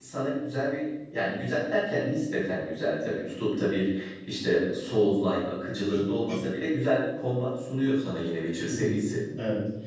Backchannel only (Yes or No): No